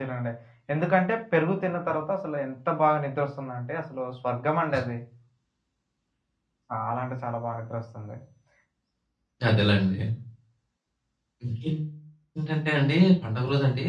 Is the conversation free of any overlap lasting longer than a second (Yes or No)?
Yes